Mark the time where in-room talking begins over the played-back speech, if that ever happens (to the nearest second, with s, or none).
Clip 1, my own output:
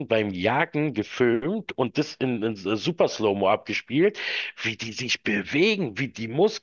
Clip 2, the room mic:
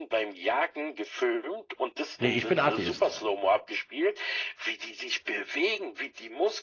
2 s